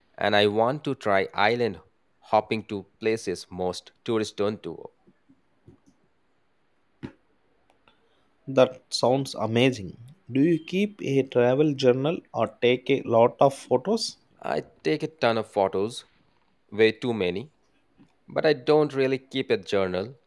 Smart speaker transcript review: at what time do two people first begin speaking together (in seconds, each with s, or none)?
none